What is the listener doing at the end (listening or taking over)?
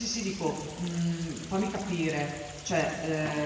taking over